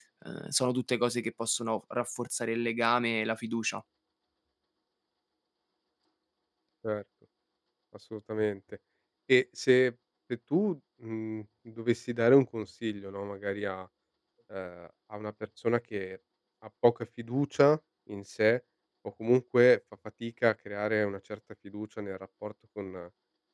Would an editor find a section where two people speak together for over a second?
No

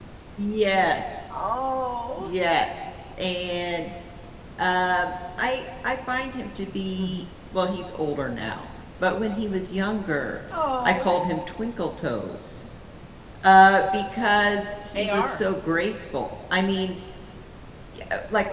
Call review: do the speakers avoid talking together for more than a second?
Yes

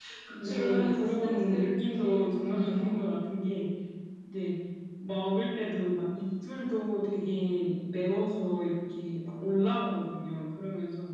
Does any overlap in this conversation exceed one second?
Yes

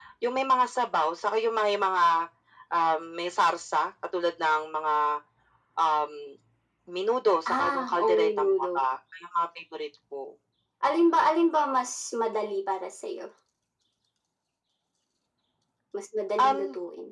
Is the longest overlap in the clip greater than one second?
Yes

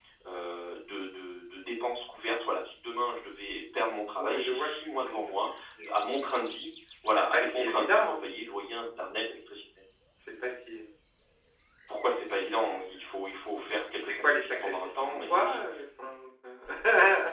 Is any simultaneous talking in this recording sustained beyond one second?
Yes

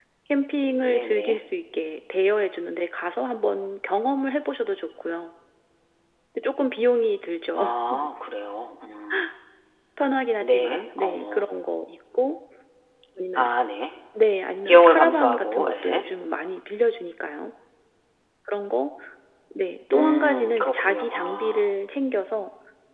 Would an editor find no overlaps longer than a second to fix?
No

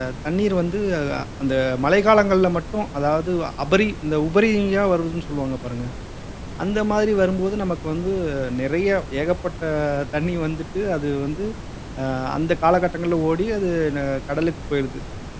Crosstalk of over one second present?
No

